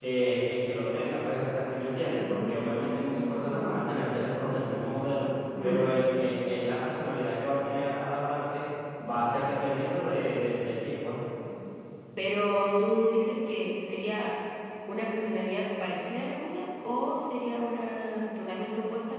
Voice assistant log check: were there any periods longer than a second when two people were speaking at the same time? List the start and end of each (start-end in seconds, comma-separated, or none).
2.2-3.8